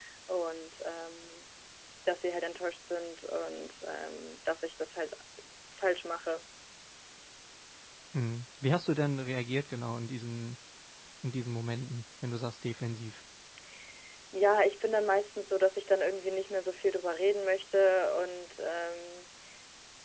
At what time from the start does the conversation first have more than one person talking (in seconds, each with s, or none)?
none